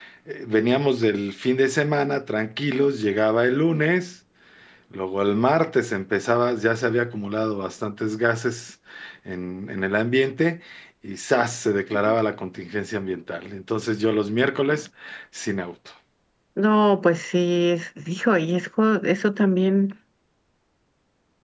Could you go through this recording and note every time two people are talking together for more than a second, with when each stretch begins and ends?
none

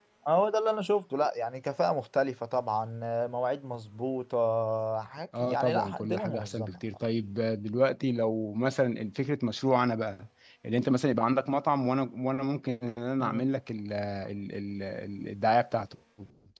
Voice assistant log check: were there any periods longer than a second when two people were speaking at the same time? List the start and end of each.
5.4-6.8

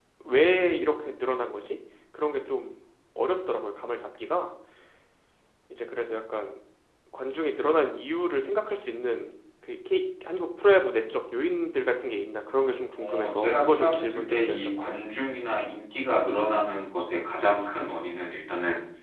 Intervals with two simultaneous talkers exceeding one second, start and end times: 13.0-14.9

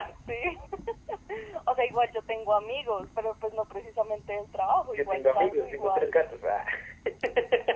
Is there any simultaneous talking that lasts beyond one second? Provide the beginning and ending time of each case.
5.0-6.2

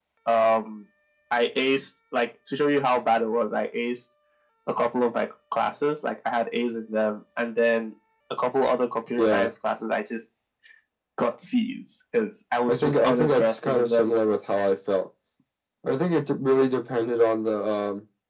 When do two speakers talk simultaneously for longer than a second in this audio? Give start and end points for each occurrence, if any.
12.7-14.1

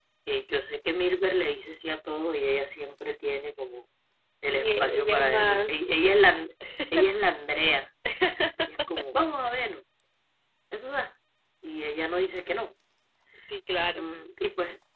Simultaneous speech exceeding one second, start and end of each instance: 4.5-5.9

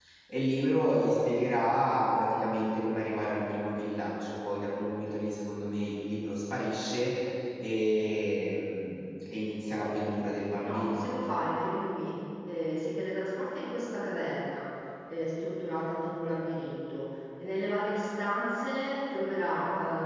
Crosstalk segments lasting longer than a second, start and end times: none

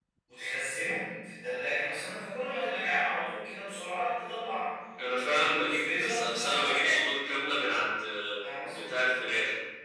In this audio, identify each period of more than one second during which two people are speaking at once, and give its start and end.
5.2-7.0

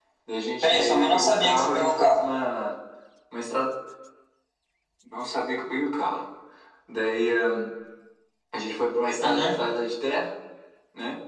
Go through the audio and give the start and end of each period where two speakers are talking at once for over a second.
0.6-2.3

